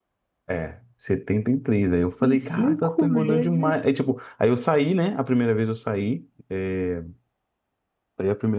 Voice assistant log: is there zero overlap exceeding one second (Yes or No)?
No